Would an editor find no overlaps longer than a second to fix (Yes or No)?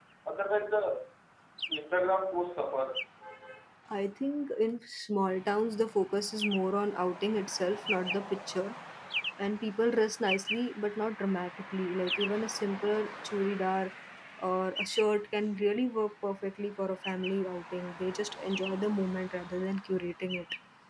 Yes